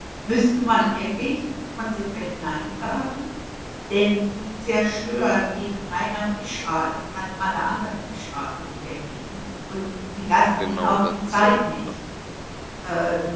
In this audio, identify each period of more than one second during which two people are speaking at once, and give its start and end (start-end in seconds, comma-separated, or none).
10.6-11.8